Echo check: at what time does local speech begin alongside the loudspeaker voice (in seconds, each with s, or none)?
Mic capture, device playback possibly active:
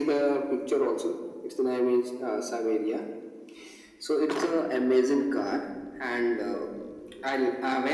none